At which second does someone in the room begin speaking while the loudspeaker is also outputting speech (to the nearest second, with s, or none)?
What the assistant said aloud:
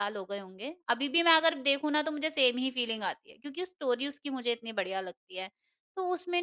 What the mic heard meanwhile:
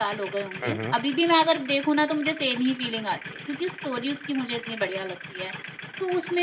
1 s